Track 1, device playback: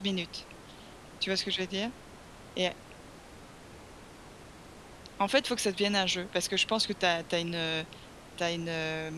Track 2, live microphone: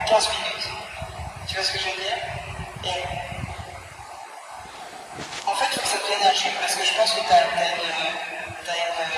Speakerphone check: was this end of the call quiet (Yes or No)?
Yes